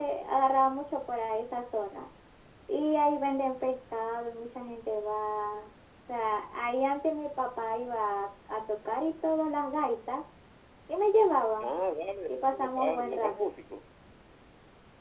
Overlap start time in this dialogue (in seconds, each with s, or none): 12.3 s